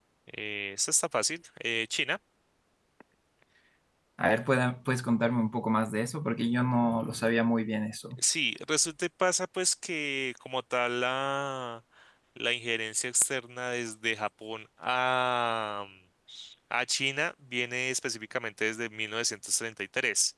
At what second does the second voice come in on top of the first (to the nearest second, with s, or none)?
none